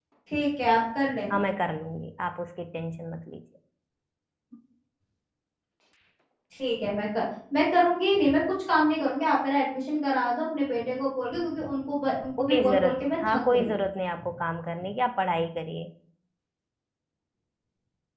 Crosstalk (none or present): present